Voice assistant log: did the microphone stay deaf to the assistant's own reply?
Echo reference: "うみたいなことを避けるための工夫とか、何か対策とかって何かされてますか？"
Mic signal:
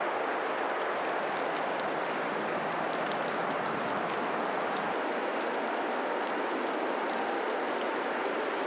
Yes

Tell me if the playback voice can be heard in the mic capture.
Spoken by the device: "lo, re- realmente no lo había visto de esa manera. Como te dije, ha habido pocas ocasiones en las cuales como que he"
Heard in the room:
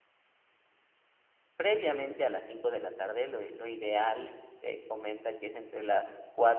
No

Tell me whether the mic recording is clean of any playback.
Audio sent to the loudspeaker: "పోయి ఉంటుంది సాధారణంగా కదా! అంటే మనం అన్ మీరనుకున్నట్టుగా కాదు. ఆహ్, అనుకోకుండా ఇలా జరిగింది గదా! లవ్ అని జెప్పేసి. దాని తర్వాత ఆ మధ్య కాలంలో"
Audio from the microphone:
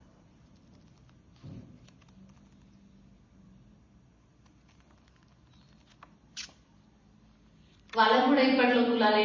Yes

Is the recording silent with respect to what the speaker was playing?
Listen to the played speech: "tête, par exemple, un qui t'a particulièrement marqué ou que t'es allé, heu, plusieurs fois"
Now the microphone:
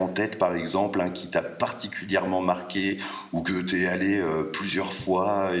No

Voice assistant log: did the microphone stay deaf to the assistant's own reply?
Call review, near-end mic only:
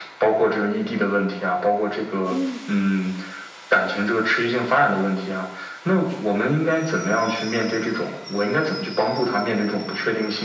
No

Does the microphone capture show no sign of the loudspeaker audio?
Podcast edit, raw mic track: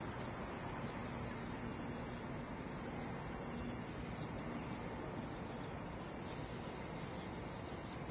Yes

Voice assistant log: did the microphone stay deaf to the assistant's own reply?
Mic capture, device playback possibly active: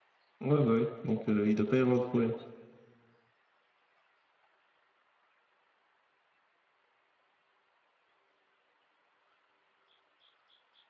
Yes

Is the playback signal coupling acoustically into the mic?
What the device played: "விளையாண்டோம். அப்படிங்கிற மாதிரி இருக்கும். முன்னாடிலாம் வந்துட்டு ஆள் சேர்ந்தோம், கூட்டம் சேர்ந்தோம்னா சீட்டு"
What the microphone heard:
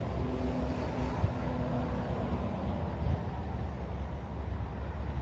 No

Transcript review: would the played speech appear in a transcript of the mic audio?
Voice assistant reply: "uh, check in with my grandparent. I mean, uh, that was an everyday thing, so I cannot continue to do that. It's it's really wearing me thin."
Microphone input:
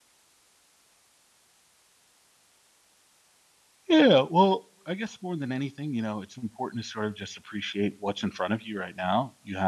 No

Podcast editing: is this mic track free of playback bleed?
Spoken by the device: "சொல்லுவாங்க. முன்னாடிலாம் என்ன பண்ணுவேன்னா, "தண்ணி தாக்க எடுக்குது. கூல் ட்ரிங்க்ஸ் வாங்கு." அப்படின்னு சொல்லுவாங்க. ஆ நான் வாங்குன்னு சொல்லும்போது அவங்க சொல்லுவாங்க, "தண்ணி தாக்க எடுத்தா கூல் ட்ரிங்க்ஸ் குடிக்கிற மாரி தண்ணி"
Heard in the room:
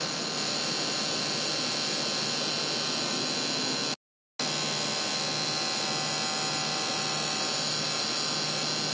Yes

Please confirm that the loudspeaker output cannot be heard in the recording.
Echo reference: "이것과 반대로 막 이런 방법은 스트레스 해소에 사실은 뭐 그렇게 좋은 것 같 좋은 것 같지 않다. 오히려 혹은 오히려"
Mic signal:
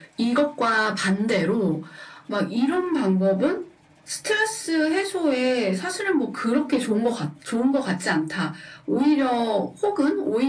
No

